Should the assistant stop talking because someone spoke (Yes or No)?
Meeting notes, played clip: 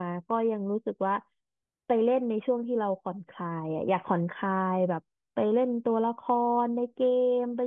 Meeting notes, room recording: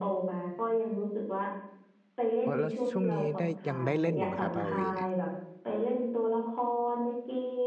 Yes